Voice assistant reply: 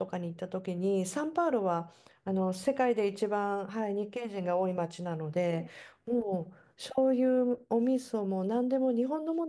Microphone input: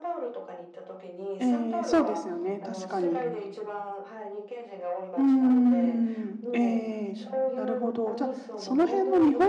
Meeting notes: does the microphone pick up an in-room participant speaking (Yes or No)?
Yes